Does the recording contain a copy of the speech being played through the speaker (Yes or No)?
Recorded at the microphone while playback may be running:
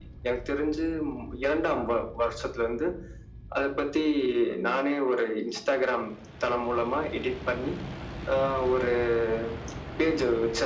Yes